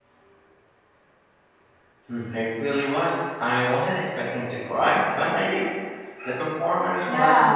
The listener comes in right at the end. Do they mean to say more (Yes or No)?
Yes